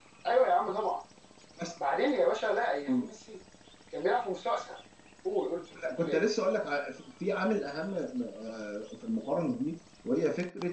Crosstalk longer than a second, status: none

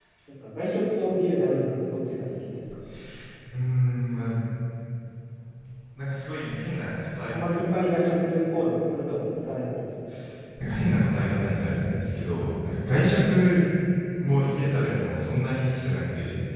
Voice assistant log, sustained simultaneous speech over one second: none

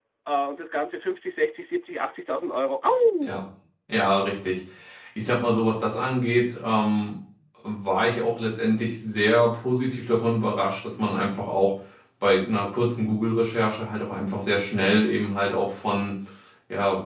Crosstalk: none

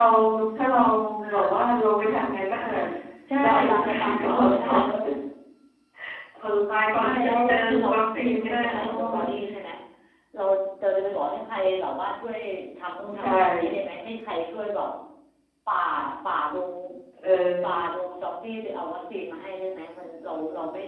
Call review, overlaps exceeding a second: present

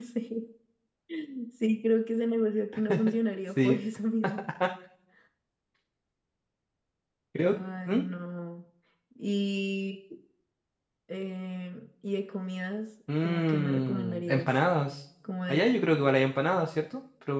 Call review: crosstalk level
present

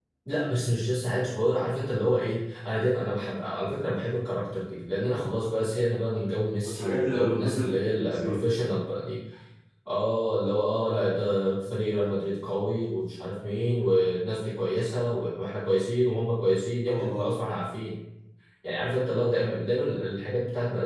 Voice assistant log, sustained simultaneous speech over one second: present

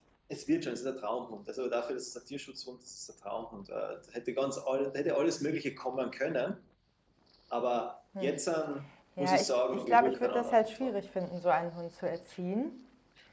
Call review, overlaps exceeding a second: present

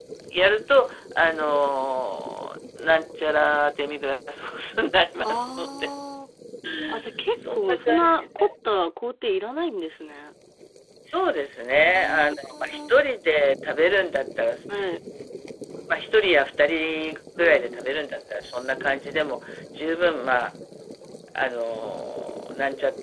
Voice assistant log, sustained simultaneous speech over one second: present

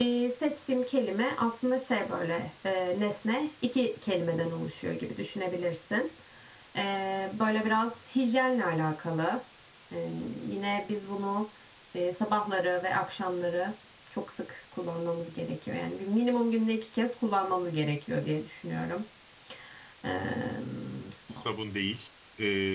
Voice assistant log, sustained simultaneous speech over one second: none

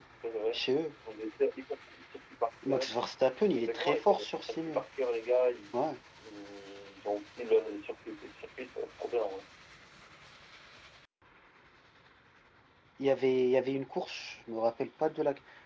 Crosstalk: present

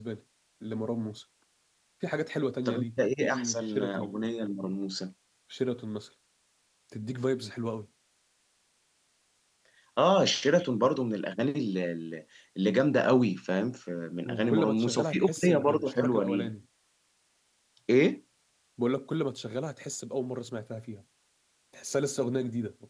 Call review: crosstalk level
present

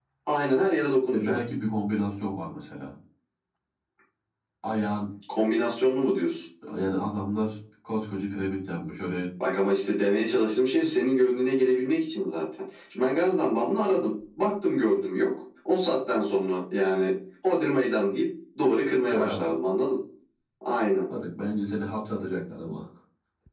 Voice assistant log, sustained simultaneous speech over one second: none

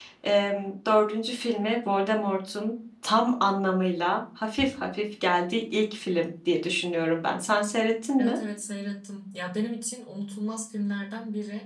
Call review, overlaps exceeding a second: none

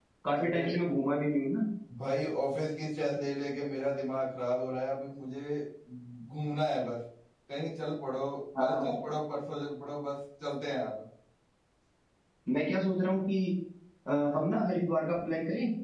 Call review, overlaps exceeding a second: none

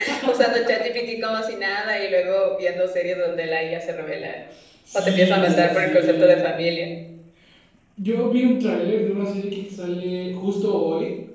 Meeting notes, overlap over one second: present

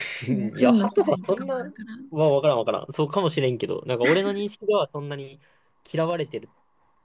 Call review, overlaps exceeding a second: present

